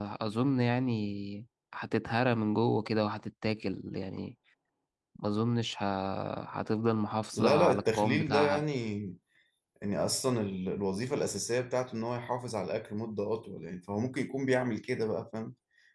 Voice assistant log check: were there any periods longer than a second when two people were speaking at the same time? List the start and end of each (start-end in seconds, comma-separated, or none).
7.3-8.6